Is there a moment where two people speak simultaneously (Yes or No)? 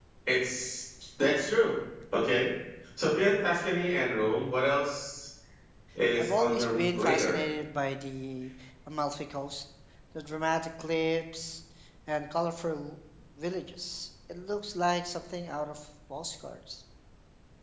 Yes